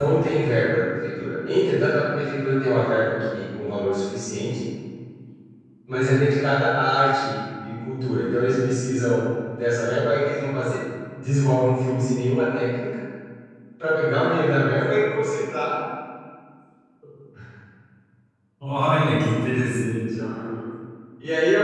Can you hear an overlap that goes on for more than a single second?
No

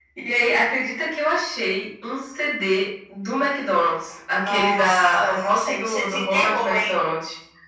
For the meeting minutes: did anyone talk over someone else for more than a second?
Yes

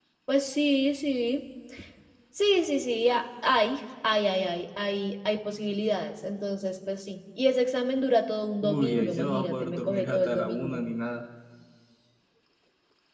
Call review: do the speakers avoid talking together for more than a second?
No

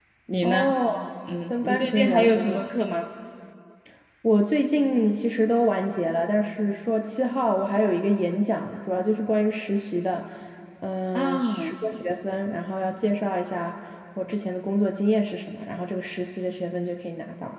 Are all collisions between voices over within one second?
No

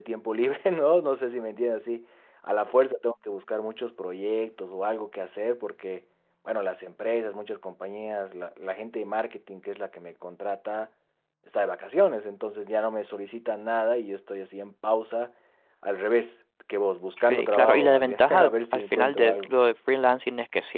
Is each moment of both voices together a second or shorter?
No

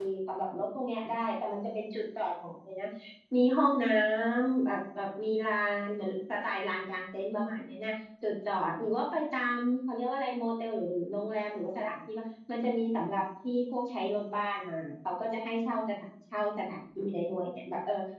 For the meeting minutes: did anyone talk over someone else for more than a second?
No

